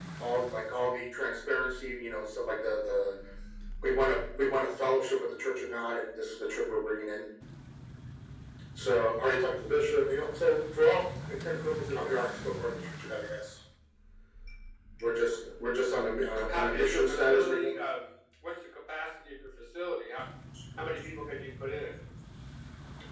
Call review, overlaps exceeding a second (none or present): present